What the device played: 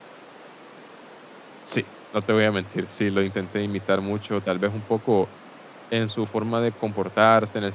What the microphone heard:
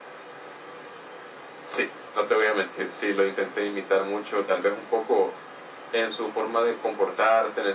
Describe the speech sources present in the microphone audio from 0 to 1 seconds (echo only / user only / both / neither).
neither